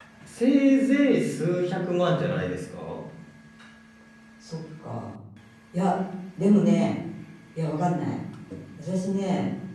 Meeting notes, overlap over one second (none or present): none